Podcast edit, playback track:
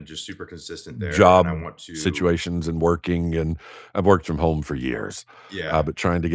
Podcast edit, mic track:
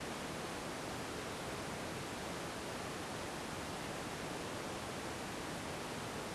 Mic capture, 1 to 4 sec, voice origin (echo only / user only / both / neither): neither